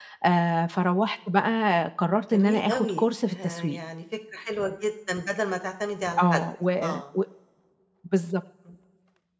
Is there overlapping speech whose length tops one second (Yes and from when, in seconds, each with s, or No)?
Yes, from 2.3 s